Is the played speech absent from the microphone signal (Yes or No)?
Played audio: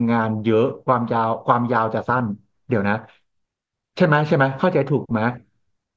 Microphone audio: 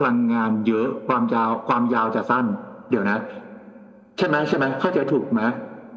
No